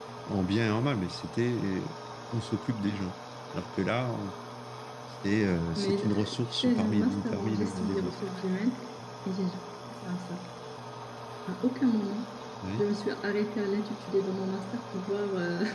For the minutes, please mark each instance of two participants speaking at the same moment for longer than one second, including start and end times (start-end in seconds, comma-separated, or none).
5.8-8.1